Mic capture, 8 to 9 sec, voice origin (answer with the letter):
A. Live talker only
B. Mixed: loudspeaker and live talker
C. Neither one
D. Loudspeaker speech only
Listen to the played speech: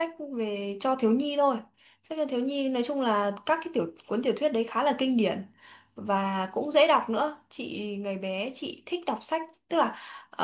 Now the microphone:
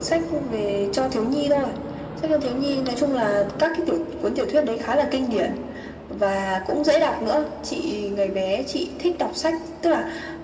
D